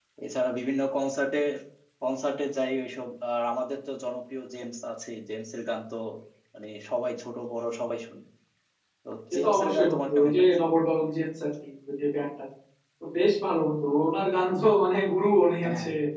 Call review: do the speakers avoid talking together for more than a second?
No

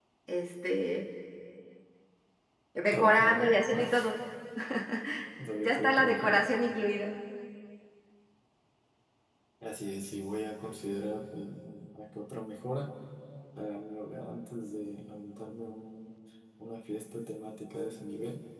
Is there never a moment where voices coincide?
No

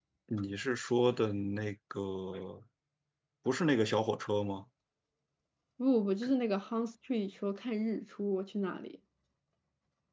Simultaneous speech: No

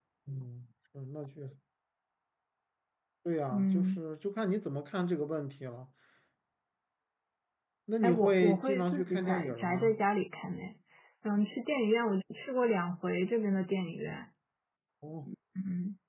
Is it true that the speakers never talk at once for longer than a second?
No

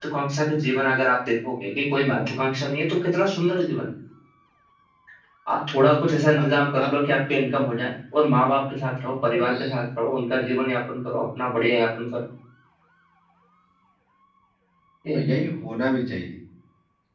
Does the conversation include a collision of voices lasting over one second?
No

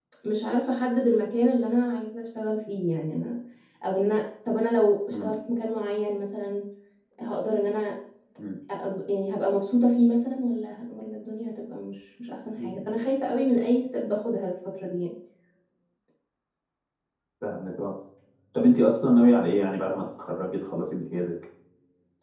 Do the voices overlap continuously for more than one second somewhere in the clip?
No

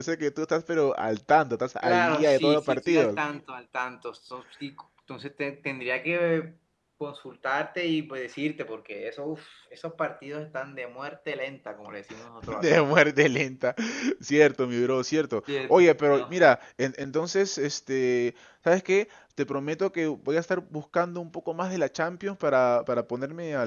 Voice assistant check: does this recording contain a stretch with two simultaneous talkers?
Yes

